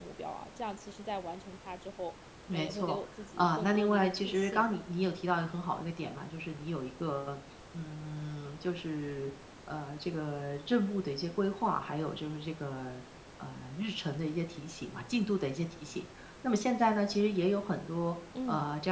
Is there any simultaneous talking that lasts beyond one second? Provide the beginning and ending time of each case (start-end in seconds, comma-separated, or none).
3.4-4.8